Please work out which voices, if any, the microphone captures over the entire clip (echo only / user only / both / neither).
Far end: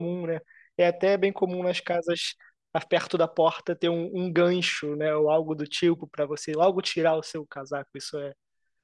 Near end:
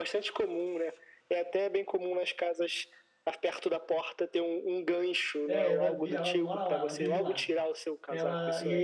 both